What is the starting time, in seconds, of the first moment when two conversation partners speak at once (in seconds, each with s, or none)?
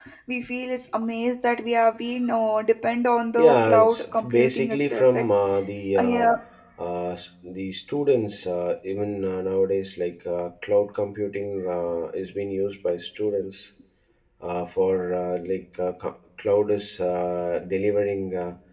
3.4 s